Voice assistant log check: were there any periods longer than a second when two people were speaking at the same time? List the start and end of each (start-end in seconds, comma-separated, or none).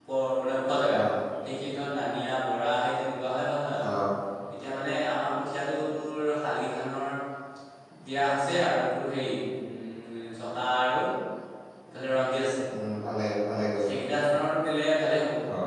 none